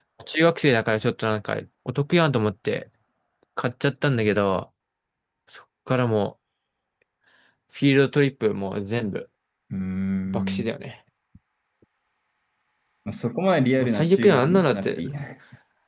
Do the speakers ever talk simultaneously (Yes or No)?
Yes